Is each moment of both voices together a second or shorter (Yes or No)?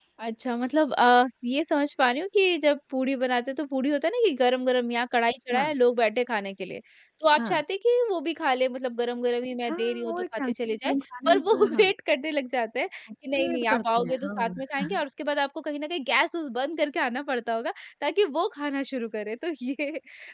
No